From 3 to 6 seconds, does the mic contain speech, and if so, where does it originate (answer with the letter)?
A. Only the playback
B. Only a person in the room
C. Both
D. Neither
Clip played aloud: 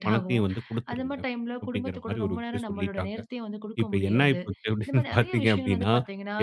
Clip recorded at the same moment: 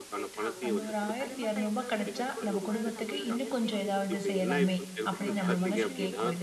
C